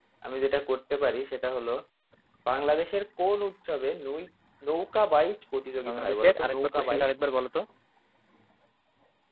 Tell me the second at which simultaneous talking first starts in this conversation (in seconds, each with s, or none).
5.8 s